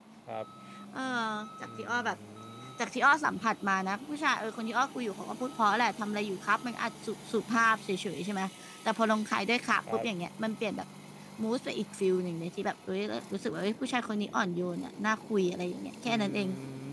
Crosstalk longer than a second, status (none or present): none